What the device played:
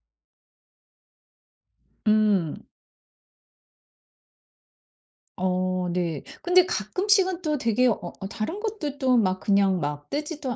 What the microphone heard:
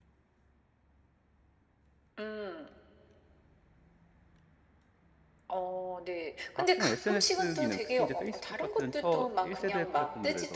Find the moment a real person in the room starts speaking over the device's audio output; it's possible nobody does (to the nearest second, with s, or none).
7 s